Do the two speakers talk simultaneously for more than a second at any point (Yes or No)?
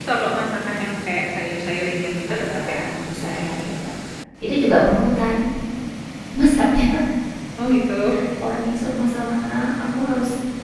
Yes